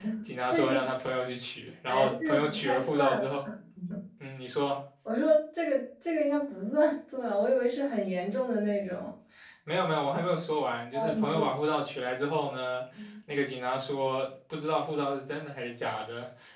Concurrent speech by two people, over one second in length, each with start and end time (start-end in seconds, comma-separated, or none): 1.9-3.2